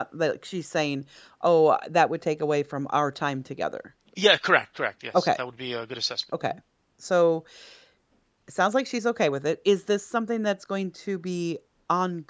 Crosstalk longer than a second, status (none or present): none